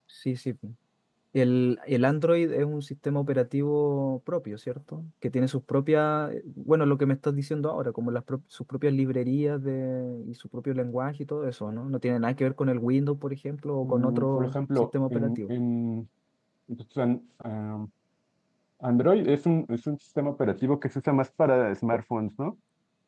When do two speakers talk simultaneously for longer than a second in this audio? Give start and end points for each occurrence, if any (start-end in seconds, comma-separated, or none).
13.8-15.5